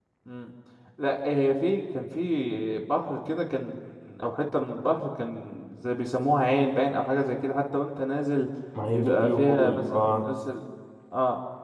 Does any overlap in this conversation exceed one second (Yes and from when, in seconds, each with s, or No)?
Yes, from 8.9 s